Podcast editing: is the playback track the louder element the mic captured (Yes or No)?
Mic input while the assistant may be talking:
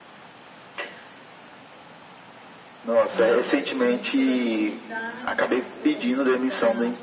Yes